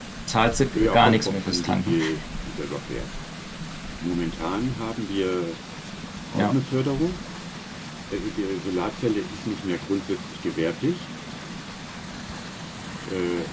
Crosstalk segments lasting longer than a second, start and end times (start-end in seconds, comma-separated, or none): 0.7-2.0